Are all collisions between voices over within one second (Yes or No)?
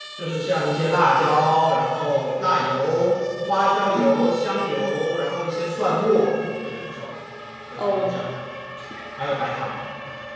Yes